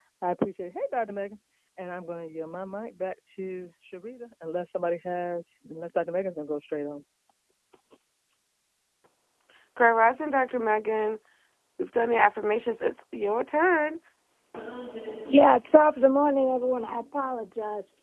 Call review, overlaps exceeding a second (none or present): none